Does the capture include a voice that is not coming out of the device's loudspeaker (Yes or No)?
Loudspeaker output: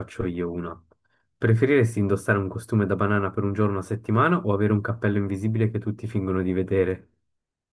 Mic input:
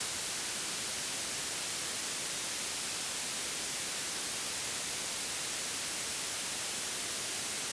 No